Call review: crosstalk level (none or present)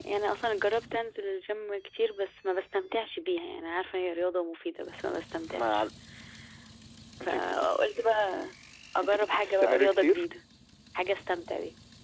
present